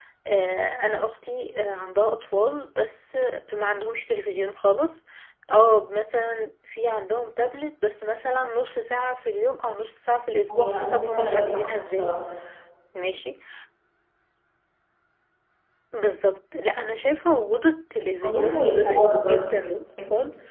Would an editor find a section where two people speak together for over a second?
Yes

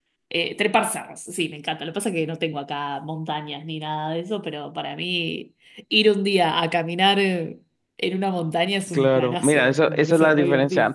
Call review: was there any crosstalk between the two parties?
Yes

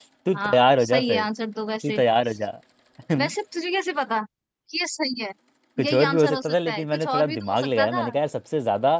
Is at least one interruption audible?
Yes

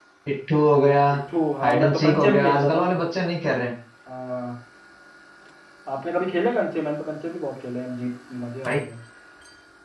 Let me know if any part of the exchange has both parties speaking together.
Yes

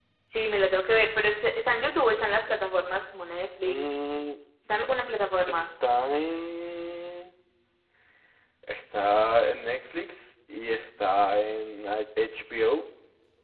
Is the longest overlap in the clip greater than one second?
No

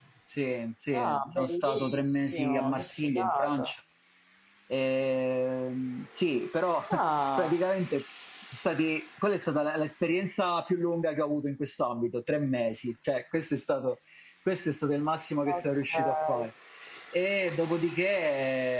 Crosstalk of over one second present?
Yes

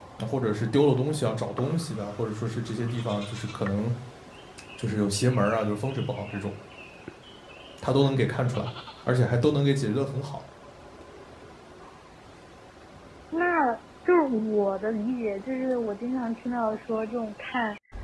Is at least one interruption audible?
No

